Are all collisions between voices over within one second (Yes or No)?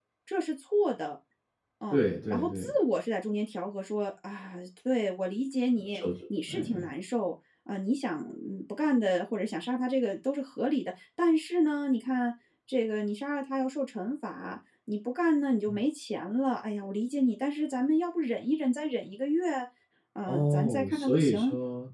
No